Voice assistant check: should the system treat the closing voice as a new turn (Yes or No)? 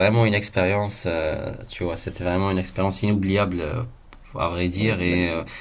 No